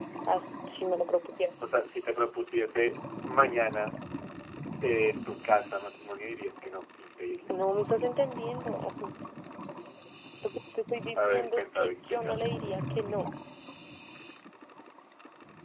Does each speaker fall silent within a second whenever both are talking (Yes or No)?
No